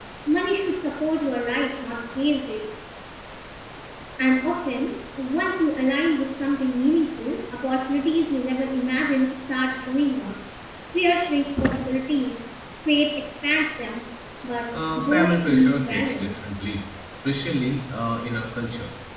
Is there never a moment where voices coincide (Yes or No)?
No